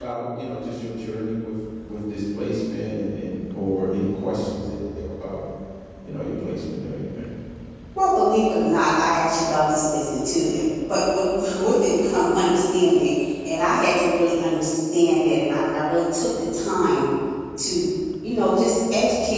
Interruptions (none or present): none